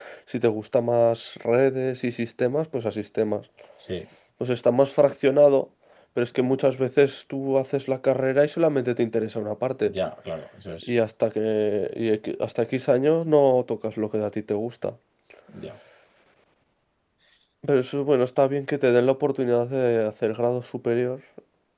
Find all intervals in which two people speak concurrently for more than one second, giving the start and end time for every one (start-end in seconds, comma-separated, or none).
none